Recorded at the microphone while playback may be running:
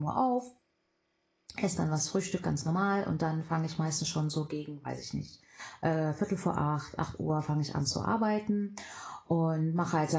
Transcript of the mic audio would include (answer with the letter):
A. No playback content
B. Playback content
A